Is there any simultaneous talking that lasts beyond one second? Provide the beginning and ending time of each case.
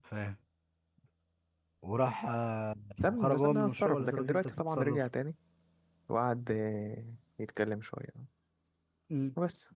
3.0-5.0

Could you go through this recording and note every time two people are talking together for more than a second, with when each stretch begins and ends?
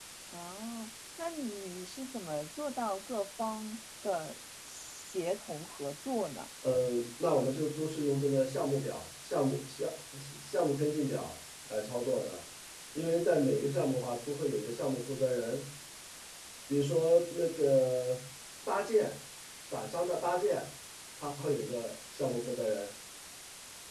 none

